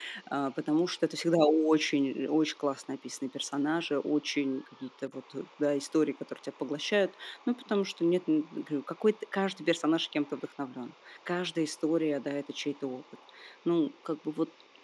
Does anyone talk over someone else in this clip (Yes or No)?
No